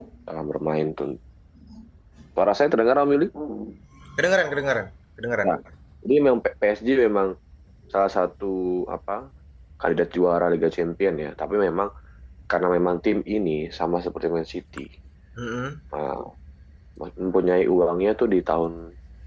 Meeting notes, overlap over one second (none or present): none